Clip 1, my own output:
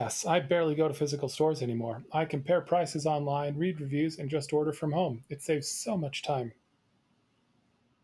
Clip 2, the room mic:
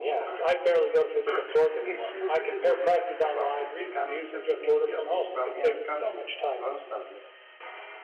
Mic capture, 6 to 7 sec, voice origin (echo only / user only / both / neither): both